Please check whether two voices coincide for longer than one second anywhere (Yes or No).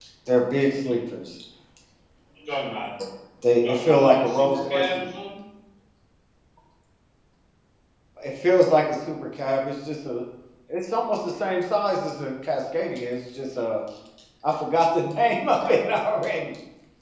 Yes